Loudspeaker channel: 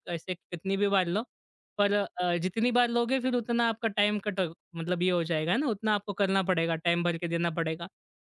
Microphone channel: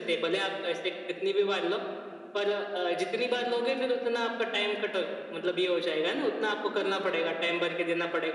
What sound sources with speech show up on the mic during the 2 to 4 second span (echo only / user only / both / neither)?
echo only